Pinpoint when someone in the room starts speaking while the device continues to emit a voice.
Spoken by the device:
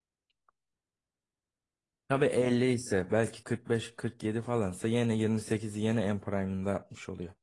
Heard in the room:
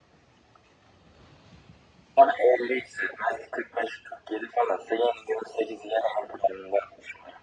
none

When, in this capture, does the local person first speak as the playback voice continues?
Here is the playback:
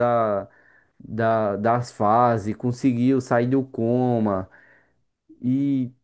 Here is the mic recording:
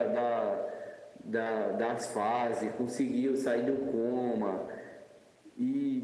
none

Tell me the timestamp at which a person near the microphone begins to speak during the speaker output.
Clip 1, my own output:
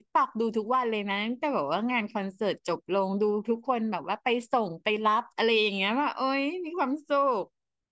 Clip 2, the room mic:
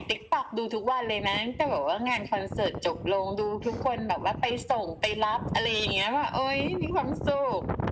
none

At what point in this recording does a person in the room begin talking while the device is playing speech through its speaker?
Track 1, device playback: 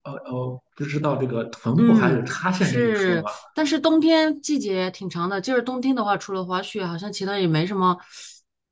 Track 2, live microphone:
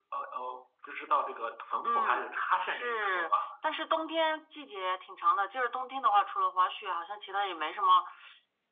none

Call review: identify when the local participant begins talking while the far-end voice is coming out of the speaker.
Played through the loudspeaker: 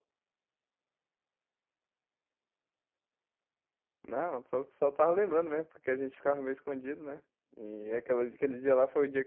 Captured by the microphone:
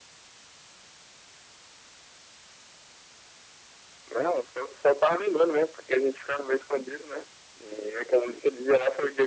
none

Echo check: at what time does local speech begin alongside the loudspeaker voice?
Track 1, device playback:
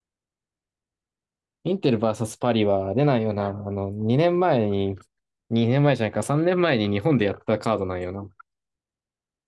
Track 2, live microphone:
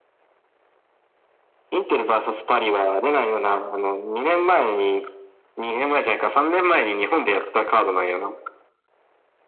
none

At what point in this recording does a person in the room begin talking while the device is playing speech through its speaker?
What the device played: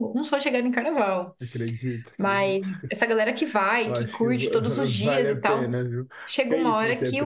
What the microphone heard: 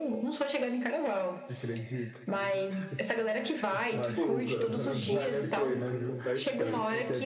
3.7 s

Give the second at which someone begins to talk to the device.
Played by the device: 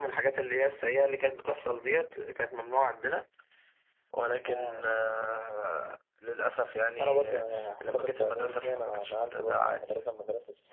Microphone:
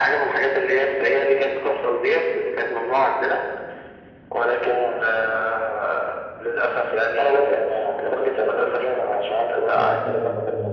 9.7 s

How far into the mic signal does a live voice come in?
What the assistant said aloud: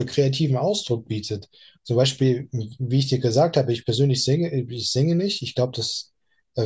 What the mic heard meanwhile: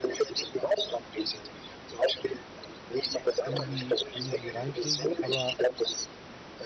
3.4 s

